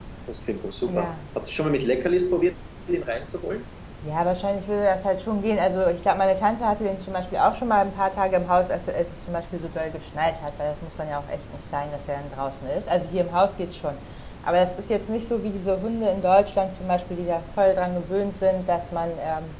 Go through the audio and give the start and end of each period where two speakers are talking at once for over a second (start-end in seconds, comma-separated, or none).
none